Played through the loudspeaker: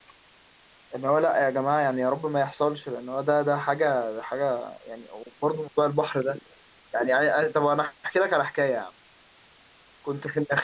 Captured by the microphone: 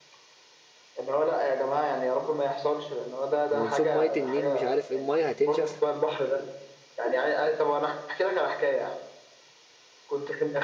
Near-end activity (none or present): present